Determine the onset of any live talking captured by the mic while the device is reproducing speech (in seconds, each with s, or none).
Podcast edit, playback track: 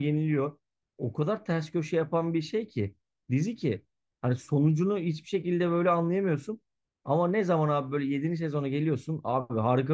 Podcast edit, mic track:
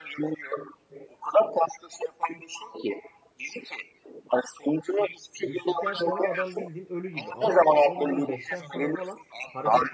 5.4 s